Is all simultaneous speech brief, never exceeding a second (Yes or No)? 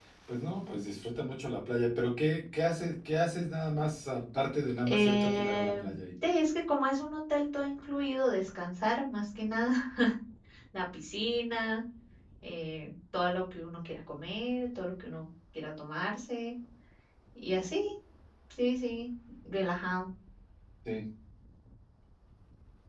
No